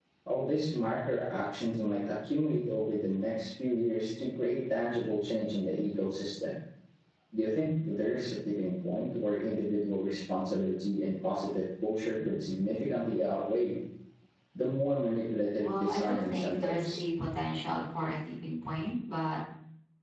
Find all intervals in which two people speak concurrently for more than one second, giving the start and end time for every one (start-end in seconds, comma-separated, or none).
15.6-17.0